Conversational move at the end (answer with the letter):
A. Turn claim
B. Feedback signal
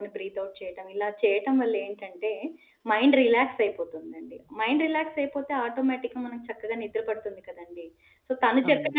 B